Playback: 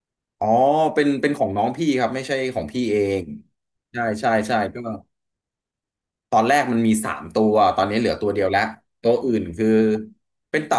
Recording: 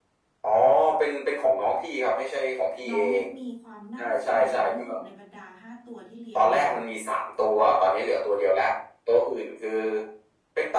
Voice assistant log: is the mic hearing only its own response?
No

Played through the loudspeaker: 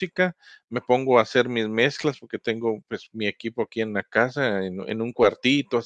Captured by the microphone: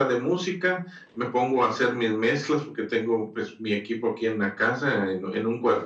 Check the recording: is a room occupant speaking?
No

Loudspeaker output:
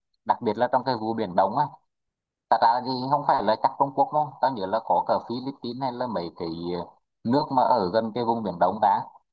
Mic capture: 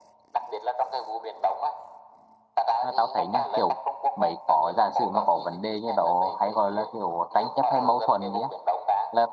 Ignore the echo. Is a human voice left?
Yes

